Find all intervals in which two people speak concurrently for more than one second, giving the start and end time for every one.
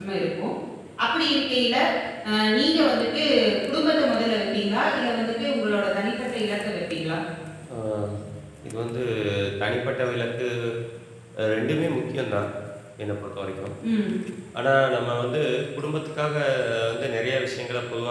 none

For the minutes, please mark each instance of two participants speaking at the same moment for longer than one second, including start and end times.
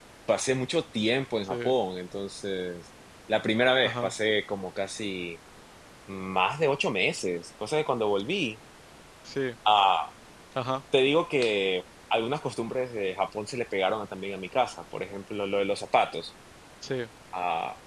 none

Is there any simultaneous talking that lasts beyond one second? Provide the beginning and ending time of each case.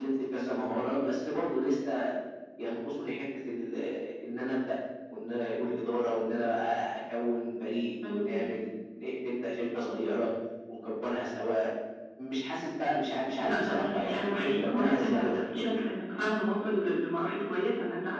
13.3-15.3

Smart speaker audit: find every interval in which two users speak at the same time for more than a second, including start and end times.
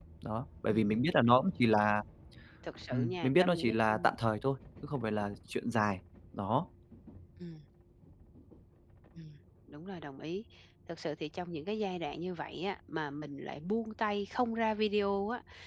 2.9-4.1

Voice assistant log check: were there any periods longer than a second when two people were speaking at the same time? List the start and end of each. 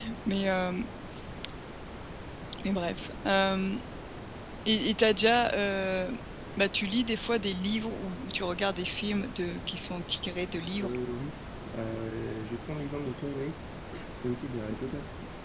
none

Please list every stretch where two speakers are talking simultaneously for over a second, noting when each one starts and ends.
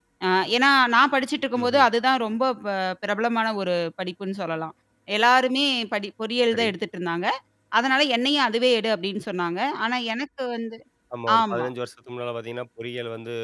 none

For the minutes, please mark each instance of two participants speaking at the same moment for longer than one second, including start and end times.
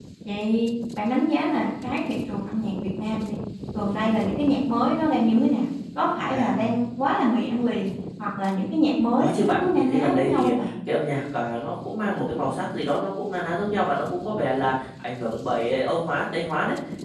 9.2-10.7

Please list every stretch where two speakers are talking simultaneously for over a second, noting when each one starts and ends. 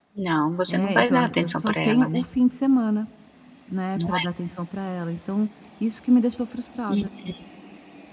0.7-2.2

